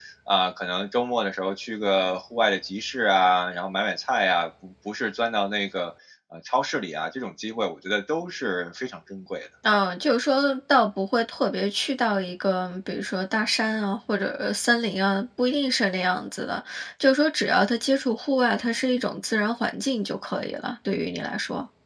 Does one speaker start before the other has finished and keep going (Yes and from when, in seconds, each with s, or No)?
No